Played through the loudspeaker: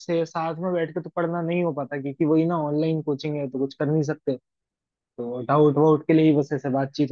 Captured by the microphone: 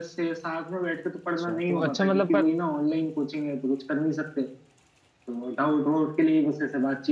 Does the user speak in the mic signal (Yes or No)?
Yes